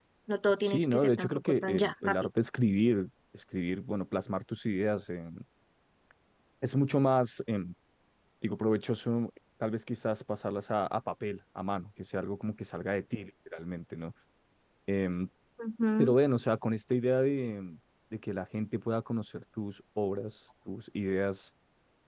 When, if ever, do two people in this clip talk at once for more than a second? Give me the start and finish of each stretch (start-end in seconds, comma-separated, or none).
0.6-2.3